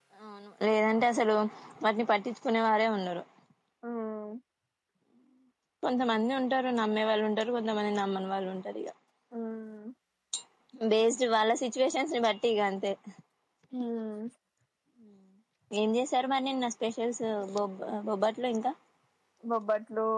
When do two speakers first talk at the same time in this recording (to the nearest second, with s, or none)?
none